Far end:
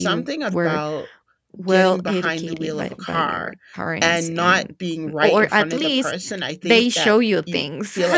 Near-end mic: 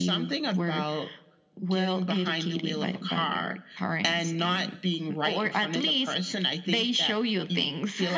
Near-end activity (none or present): none